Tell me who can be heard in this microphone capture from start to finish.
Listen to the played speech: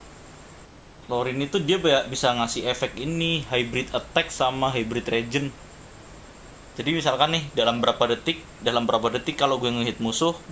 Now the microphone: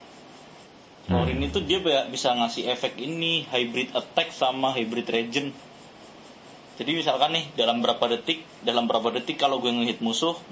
both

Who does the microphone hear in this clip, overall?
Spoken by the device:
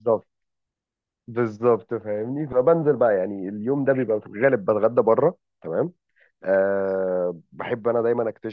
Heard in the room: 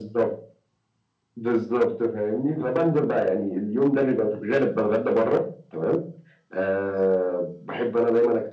echo only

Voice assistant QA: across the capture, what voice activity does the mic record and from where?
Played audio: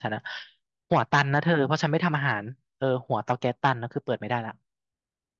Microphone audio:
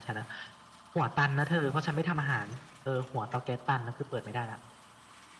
echo only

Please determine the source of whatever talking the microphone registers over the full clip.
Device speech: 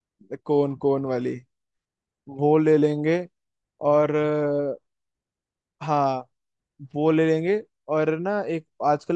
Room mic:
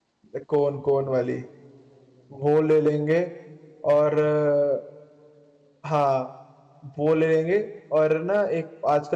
echo only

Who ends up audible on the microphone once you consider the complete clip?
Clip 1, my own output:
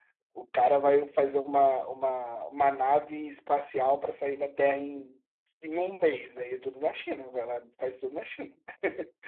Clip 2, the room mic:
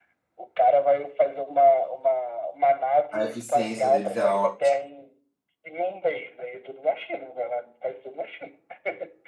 both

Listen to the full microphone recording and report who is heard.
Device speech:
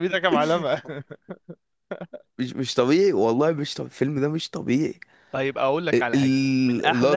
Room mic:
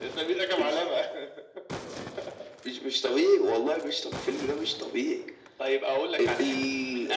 echo only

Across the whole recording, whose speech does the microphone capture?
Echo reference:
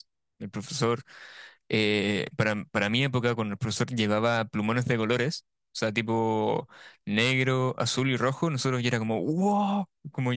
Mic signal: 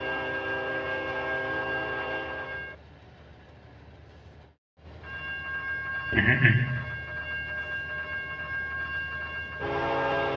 user only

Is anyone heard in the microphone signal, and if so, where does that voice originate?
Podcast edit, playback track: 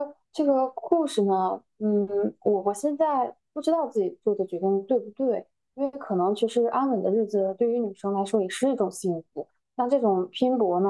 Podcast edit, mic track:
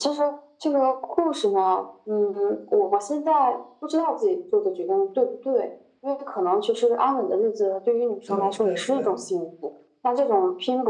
both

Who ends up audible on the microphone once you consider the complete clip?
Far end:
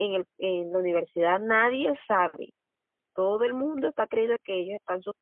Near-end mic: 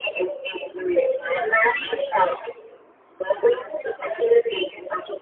echo only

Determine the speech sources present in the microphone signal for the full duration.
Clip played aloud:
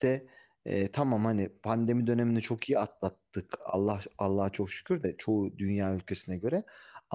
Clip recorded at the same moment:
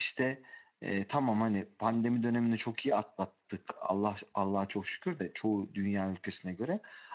echo only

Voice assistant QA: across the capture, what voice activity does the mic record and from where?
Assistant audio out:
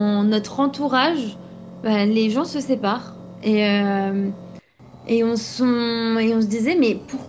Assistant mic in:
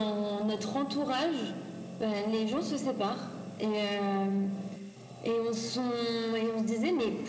echo only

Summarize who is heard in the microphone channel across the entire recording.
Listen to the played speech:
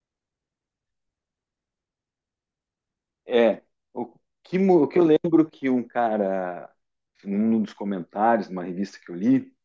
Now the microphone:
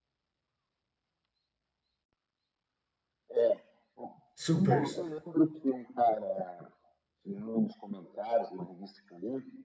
both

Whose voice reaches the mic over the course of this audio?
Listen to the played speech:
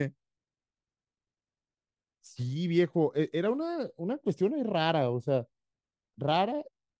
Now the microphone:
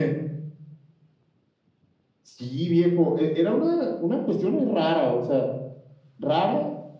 echo only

